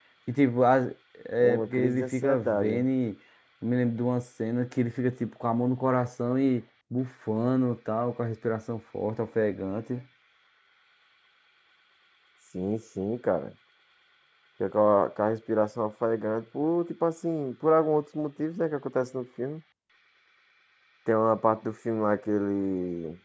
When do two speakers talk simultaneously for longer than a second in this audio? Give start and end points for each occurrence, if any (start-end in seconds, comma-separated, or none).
1.4-2.8